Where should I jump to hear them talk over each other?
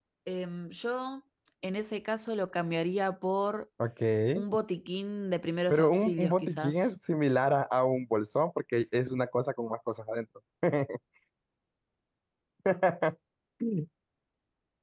5.7 s

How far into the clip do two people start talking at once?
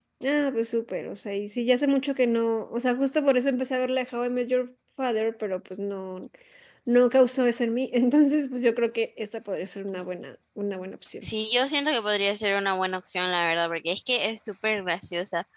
none

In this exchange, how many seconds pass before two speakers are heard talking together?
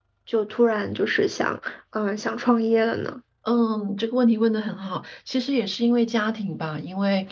none

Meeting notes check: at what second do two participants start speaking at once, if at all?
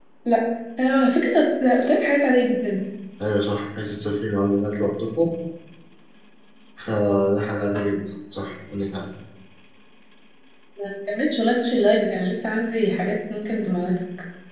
none

